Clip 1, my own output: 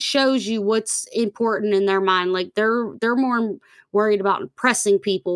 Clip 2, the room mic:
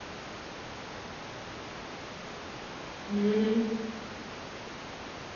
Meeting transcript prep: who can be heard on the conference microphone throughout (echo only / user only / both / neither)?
user only